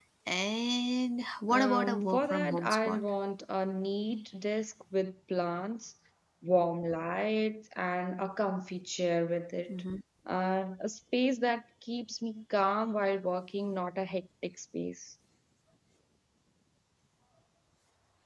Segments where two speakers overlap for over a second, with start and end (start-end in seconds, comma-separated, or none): 1.5-3.0